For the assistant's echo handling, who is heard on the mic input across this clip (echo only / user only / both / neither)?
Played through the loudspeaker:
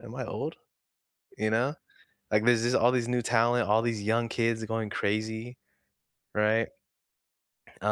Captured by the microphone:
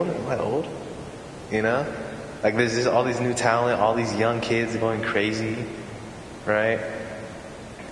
echo only